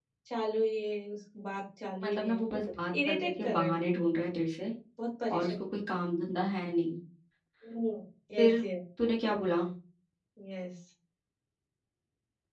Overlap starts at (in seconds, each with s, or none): 2.0 s